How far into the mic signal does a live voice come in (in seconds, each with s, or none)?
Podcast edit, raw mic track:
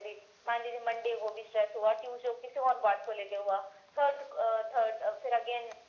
none